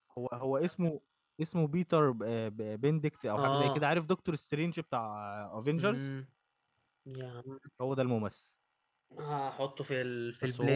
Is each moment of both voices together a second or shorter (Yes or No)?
Yes